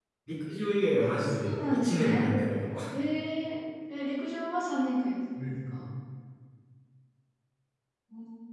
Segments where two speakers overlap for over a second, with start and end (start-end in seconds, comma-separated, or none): 1.0-2.2